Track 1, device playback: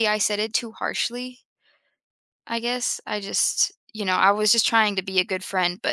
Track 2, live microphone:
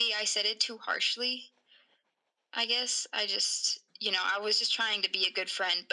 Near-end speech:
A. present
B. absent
B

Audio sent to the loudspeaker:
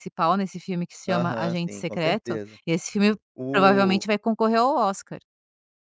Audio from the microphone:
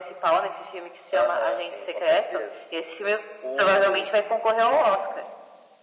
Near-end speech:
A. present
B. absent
B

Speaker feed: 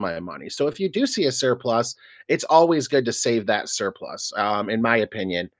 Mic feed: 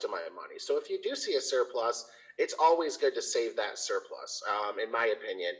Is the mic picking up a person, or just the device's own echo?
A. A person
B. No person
B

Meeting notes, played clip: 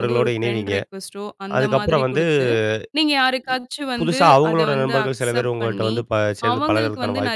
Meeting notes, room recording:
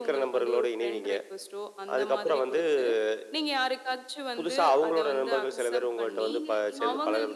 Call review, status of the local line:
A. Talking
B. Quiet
A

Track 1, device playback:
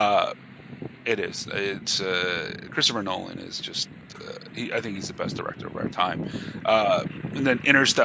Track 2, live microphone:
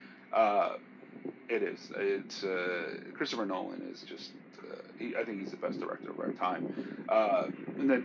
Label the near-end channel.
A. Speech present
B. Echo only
B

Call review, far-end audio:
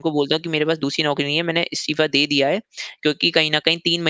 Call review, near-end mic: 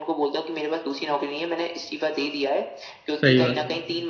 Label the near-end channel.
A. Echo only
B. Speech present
B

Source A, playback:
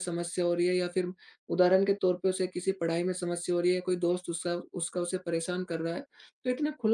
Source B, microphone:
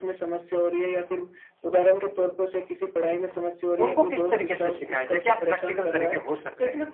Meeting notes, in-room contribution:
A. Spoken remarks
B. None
A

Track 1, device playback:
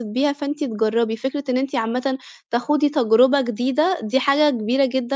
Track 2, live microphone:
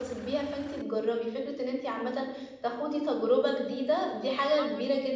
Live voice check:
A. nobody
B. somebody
B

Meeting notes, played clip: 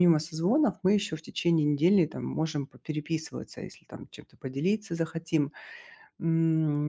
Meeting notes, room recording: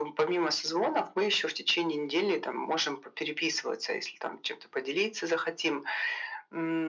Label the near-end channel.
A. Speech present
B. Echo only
B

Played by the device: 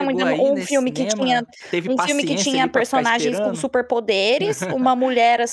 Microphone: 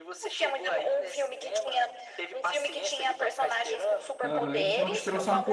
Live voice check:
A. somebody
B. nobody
A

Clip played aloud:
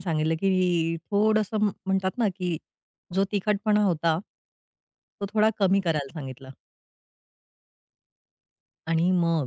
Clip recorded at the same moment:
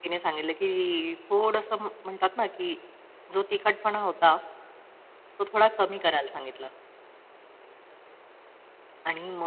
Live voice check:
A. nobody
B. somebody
A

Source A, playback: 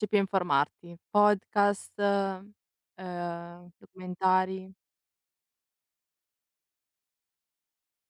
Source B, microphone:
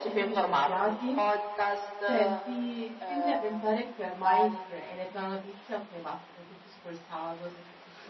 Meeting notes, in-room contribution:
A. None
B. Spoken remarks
B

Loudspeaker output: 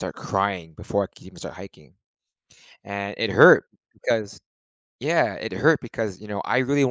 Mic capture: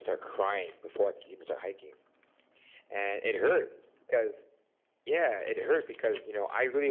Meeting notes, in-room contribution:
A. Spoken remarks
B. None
B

